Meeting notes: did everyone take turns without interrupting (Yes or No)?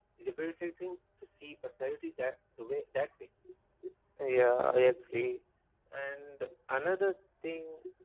Yes